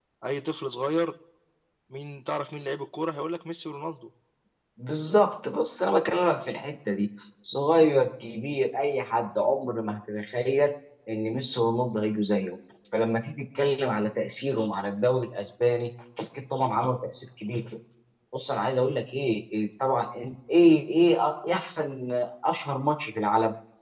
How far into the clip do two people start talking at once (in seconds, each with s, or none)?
none